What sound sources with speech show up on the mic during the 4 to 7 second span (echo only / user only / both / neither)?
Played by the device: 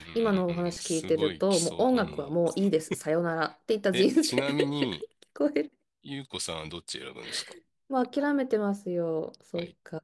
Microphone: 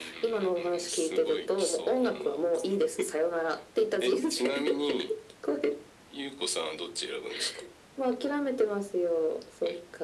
echo only